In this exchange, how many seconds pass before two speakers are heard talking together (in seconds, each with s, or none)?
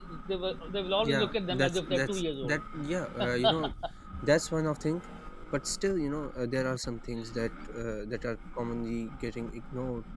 1.0 s